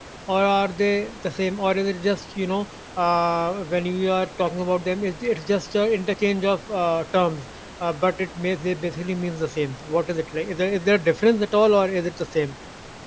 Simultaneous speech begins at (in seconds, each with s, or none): none